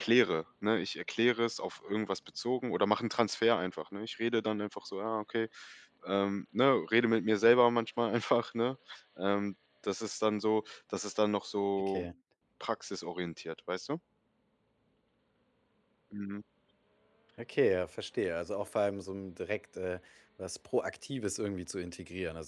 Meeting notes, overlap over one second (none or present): none